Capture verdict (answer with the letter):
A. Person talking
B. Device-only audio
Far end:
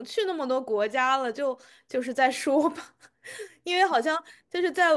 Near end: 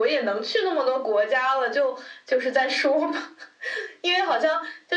B